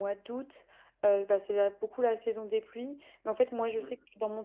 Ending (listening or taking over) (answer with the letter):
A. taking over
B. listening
B